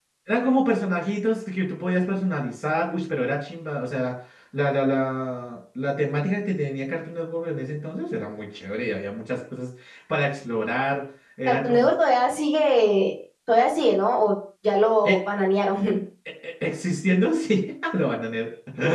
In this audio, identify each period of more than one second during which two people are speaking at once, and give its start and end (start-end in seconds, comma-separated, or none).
none